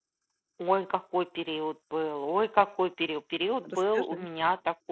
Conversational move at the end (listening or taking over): listening